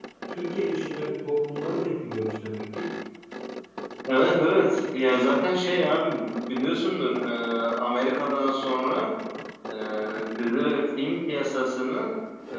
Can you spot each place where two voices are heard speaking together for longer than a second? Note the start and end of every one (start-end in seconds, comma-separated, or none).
none